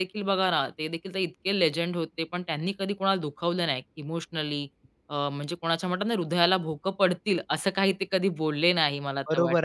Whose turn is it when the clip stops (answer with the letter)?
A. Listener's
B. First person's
A